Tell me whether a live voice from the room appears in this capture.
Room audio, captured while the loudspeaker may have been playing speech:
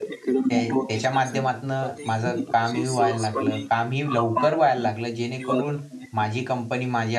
Yes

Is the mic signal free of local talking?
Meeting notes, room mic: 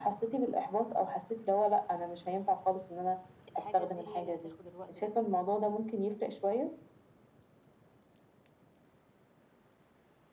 No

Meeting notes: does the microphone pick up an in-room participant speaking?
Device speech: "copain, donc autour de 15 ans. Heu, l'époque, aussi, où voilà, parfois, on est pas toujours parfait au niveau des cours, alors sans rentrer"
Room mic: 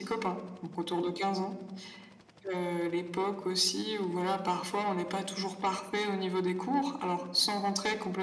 No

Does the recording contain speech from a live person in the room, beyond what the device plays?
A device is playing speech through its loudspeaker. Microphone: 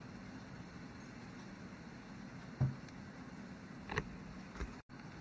No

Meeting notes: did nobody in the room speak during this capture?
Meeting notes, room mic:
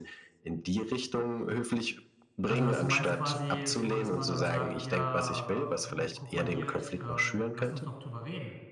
No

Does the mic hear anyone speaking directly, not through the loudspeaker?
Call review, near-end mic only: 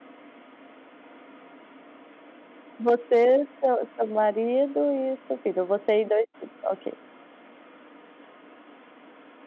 Yes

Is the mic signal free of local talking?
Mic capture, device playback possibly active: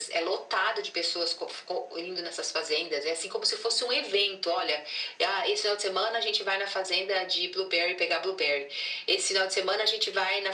Yes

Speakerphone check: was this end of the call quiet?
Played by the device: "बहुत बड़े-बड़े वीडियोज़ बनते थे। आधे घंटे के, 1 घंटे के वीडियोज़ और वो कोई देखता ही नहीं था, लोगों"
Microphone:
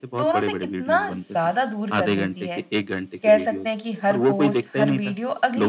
No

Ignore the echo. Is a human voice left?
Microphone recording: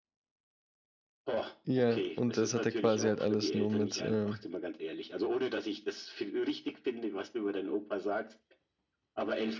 Yes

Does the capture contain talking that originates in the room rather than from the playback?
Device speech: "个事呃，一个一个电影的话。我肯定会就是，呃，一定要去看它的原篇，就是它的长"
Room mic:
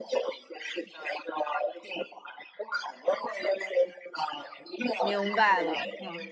Yes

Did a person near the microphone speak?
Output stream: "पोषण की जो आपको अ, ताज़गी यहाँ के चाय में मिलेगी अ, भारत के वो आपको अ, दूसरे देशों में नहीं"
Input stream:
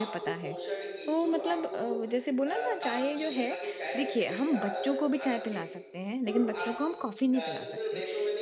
Yes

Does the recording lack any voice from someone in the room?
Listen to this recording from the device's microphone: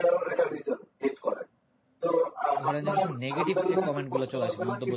No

